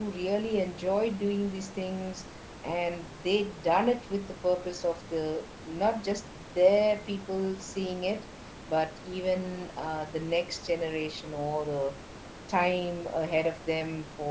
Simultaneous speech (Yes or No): No